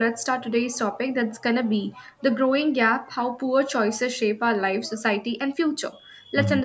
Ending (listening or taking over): listening